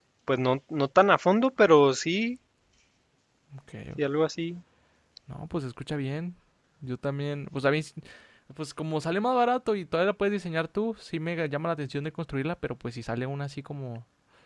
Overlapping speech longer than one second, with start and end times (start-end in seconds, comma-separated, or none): none